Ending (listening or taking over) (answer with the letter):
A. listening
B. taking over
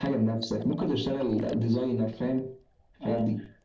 B